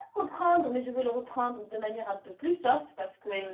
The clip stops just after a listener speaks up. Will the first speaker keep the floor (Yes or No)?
Yes